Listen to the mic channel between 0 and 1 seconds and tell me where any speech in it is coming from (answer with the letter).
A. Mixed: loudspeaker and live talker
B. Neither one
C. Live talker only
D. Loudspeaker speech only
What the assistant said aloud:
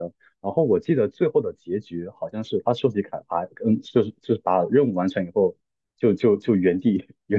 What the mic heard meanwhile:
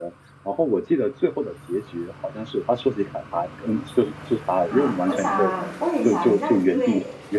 D